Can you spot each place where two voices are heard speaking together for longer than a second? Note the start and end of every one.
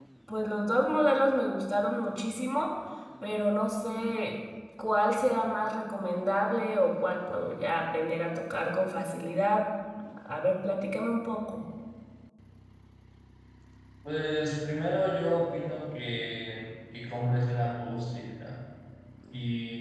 none

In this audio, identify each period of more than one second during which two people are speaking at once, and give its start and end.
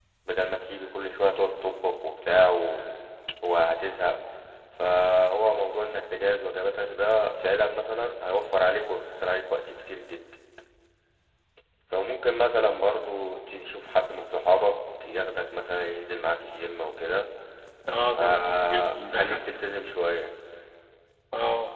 18.1-19.4

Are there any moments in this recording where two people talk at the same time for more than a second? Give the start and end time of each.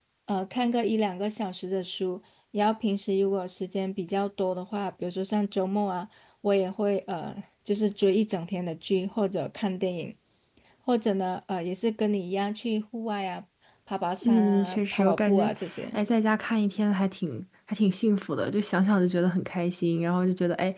14.2-15.5

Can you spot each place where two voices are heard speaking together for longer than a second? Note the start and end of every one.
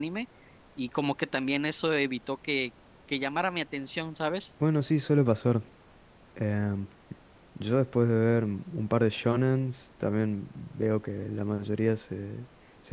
none

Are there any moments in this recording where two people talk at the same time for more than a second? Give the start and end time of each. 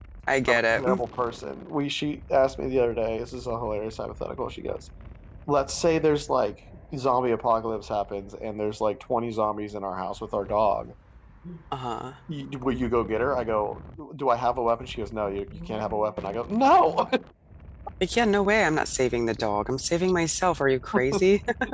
none

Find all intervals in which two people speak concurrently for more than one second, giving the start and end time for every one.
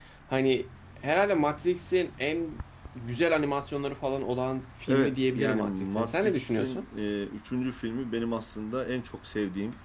4.9-6.8

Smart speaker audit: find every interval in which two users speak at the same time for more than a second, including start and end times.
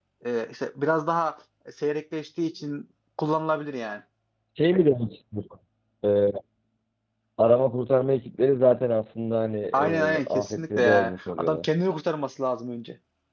9.7-11.6

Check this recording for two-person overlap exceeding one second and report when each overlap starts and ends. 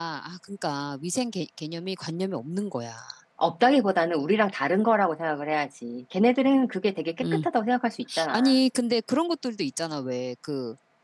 none

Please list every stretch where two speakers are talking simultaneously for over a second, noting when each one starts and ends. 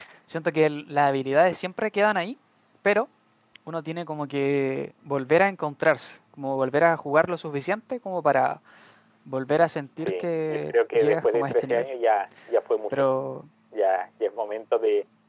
10.0-11.8

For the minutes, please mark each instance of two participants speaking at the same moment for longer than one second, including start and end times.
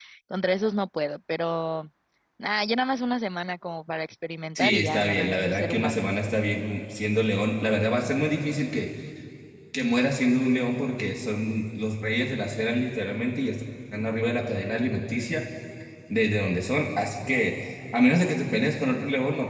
4.6-6.0

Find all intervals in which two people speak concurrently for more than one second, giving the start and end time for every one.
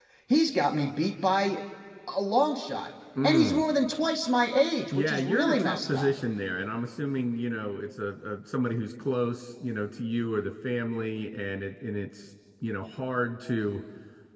4.9-6.1

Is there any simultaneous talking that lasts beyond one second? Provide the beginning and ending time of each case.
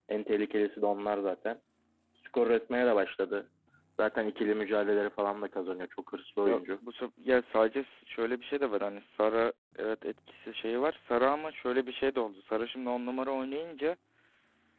none

